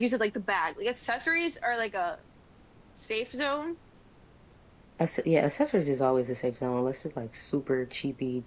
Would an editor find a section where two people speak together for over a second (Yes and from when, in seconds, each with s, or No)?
No